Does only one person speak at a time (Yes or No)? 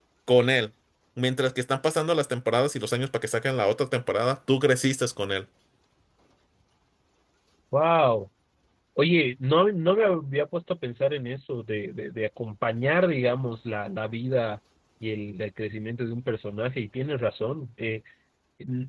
Yes